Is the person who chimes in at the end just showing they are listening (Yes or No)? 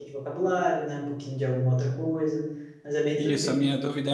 No